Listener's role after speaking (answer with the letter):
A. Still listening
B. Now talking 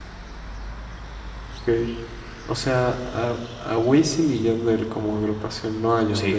B